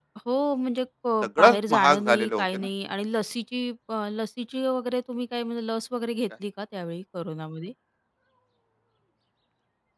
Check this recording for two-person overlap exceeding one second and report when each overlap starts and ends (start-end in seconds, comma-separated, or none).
1.2-2.6